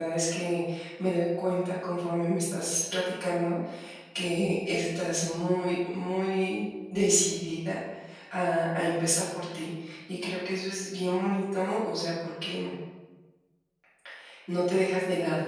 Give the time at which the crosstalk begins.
none

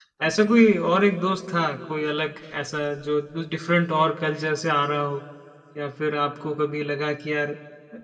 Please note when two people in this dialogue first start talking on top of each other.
none

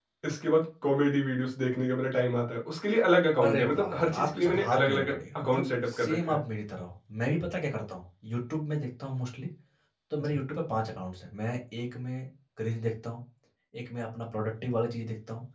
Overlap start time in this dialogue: 3 s

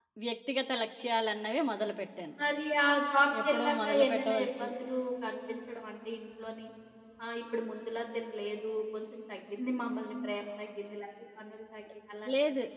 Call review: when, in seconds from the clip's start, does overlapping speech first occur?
3 s

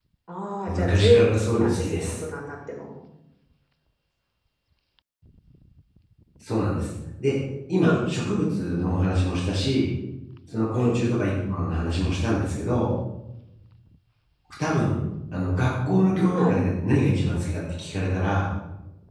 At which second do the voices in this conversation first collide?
1 s

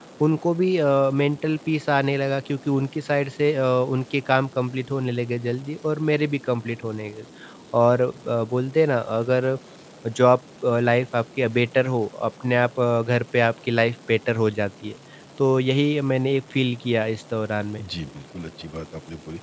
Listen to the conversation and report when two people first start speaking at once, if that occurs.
none

